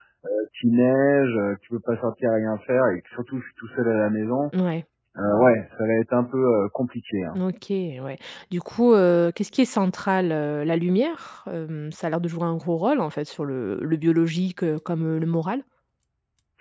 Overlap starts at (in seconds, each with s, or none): none